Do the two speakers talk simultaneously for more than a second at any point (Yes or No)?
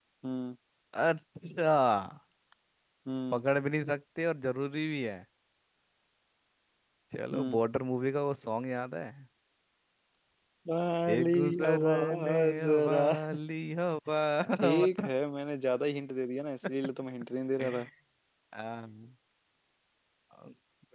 Yes